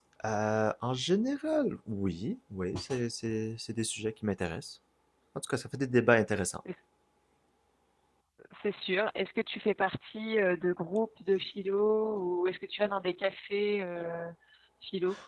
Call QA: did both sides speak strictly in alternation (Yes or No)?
Yes